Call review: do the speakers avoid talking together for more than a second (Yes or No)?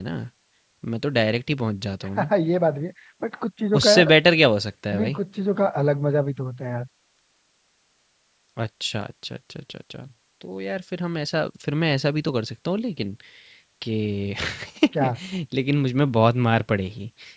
Yes